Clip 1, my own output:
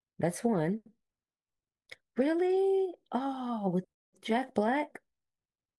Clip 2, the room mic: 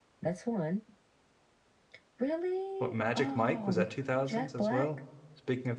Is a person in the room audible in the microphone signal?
Yes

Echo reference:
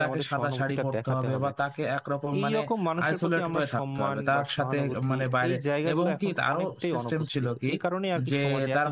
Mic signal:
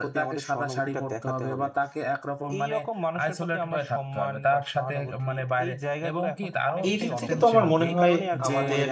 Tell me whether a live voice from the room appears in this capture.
Yes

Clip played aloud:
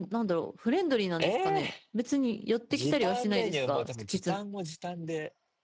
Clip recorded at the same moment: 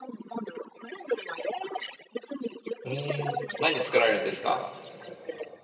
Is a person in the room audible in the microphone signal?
Yes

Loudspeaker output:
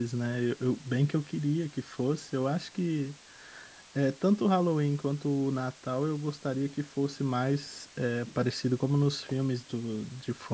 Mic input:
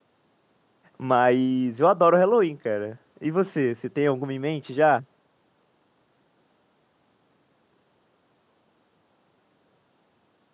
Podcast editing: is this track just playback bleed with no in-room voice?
No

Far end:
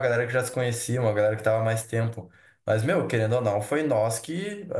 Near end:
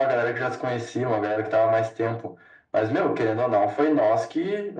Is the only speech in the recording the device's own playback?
Yes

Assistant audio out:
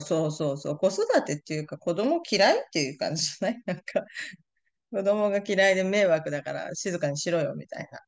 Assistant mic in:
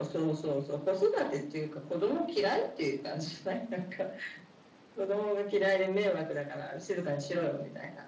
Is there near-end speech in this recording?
No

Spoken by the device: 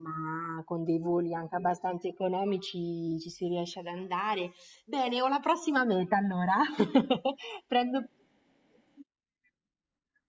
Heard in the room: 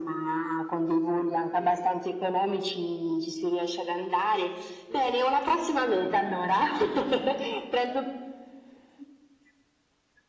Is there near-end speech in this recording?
No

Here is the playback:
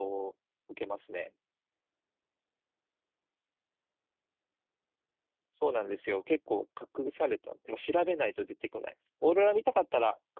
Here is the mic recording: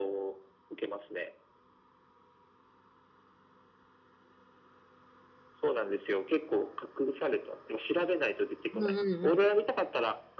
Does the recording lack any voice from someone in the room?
No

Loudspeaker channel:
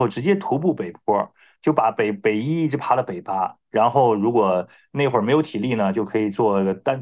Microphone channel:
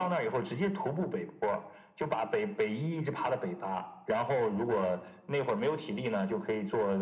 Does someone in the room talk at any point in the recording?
No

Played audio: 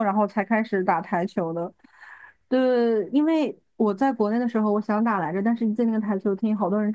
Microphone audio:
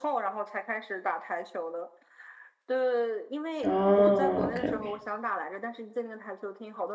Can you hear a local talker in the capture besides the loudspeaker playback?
Yes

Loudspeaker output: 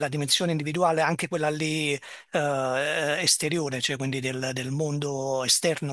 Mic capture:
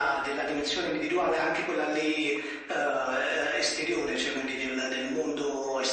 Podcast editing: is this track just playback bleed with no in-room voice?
Yes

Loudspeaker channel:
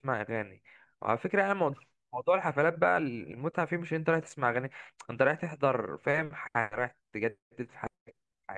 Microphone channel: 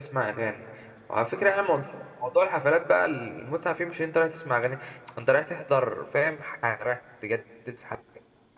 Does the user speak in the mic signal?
No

